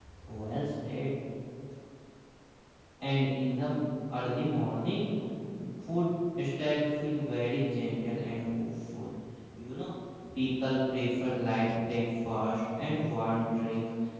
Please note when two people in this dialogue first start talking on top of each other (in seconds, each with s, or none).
none